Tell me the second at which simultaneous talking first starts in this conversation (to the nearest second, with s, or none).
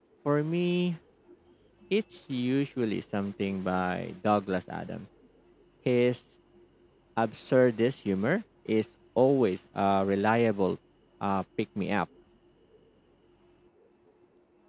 none